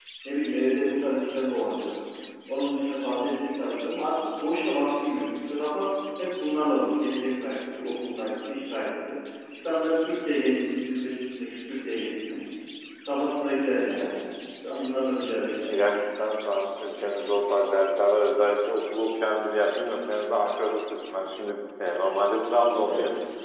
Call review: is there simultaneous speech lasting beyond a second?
No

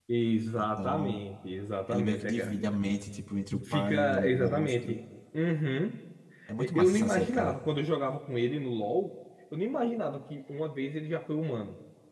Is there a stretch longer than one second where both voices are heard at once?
Yes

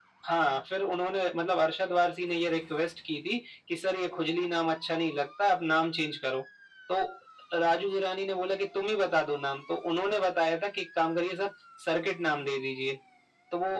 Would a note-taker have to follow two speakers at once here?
No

